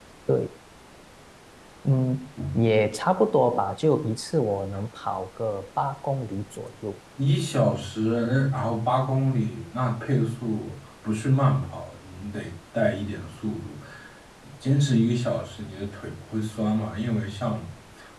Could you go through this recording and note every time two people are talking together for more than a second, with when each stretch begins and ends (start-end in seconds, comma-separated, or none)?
none